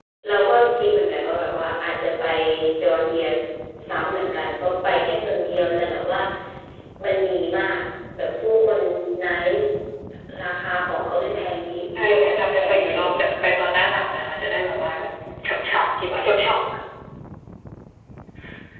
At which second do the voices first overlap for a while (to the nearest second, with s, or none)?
12 s